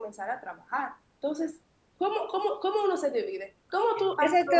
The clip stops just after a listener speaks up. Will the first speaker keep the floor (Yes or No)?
No